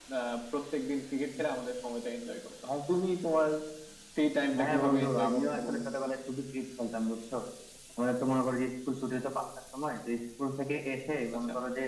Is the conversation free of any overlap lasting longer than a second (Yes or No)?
No